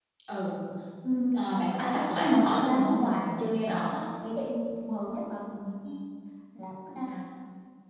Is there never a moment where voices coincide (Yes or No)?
No